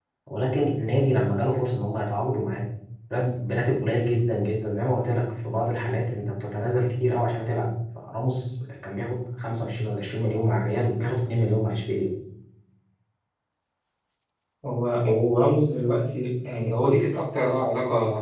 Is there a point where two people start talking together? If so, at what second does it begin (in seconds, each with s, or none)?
none